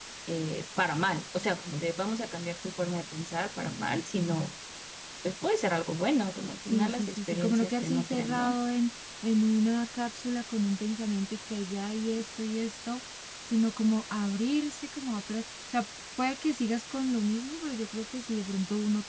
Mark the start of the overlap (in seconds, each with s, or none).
6.7 s